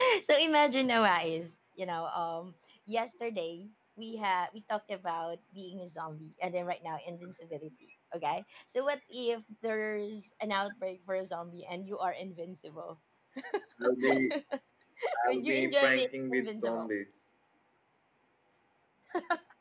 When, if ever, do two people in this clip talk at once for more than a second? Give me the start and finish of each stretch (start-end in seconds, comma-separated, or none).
15.3-16.9